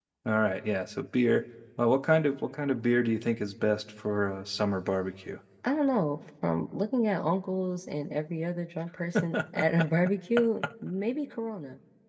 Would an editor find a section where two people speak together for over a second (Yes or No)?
No